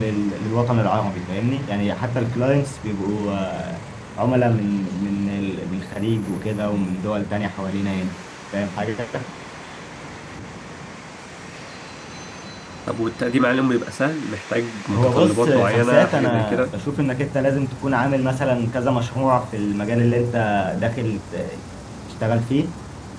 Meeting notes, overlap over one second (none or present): present